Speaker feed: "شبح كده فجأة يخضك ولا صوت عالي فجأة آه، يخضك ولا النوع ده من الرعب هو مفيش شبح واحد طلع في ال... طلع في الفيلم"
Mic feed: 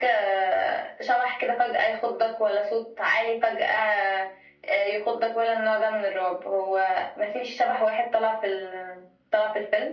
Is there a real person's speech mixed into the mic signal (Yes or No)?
No